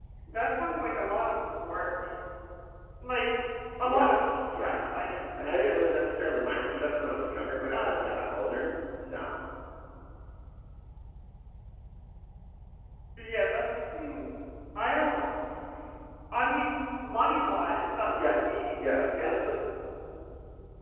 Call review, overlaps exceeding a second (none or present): present